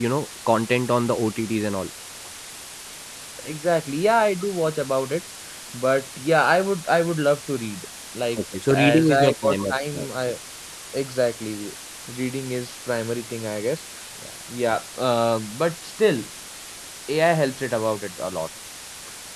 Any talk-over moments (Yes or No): Yes